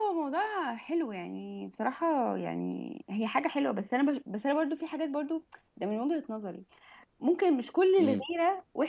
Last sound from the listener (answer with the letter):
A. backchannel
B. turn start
A